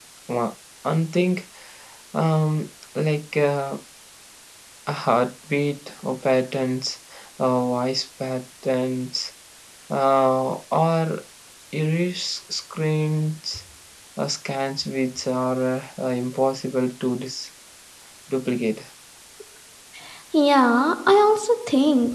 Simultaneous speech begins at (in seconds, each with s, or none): none